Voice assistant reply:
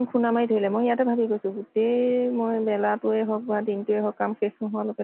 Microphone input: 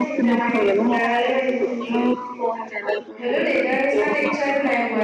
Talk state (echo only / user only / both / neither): both